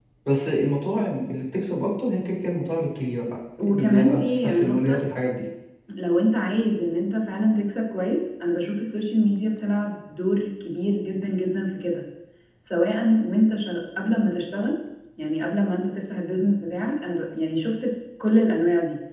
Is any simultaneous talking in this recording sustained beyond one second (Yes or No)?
Yes